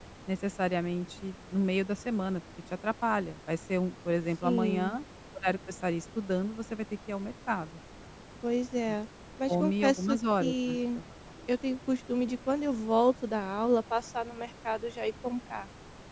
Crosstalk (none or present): present